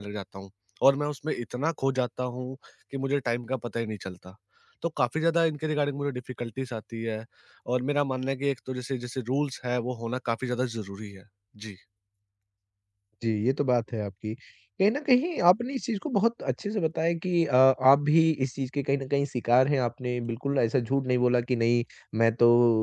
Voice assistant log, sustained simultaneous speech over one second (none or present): none